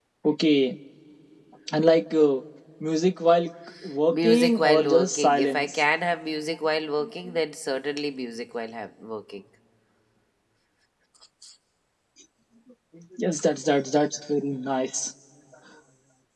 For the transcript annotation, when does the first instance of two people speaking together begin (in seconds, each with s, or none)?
4.1 s